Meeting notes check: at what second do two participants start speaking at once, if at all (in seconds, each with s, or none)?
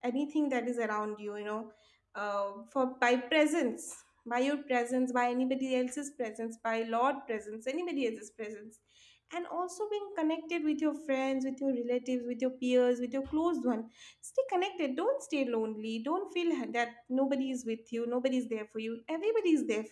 none